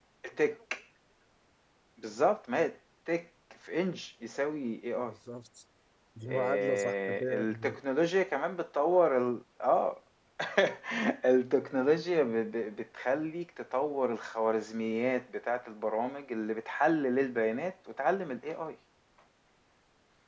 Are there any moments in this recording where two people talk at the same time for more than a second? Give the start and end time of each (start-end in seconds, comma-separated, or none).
6.2-7.8